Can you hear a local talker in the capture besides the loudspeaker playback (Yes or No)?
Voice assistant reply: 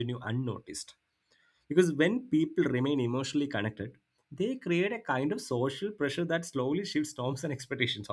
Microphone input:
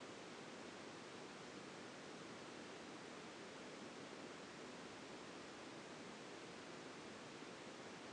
No